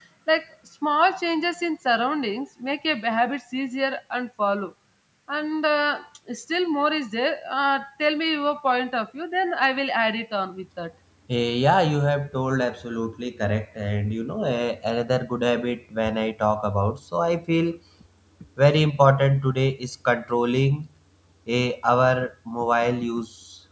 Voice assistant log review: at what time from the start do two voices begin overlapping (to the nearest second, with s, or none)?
none